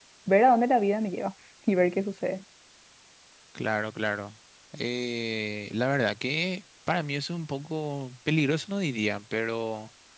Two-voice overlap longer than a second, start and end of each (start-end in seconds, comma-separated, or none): none